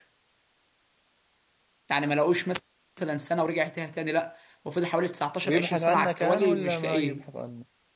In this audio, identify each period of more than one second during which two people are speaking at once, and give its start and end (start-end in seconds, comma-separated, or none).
5.5-7.2